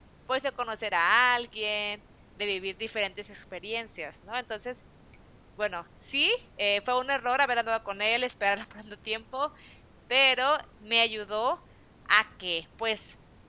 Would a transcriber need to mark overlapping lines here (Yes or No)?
No